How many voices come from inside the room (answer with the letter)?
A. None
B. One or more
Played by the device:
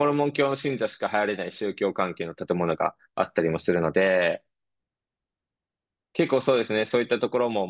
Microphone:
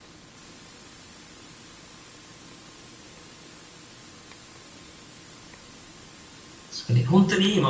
B